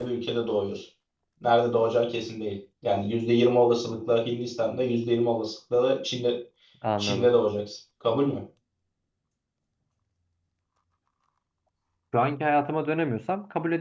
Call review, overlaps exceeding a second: none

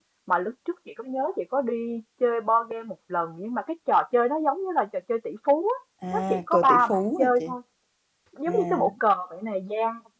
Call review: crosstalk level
present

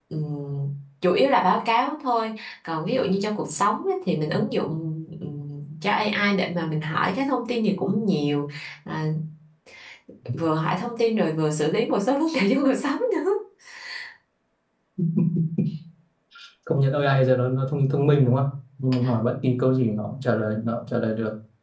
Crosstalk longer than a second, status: none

